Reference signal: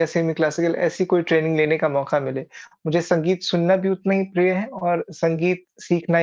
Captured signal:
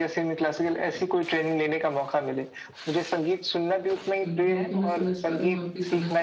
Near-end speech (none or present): present